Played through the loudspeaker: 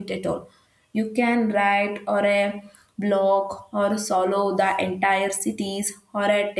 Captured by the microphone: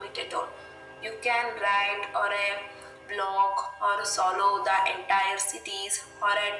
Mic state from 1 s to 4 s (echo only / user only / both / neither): echo only